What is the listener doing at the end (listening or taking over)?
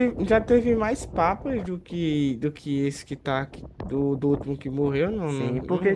taking over